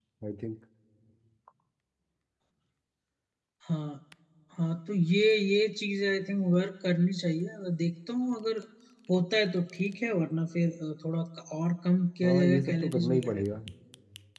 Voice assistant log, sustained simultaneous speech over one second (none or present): present